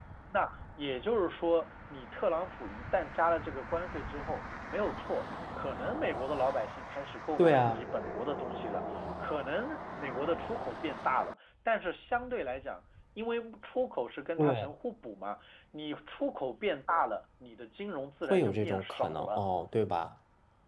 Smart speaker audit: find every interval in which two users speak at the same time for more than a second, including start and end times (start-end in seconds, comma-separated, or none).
18.2-19.4